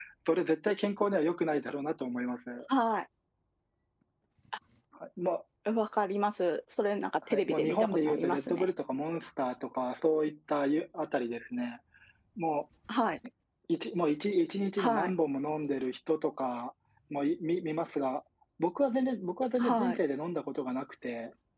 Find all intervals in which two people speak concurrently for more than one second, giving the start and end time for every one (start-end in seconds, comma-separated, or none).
7.3-8.7